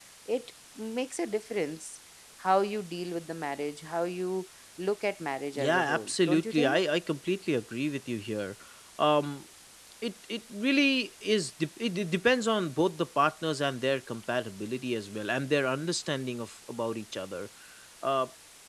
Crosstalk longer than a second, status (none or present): present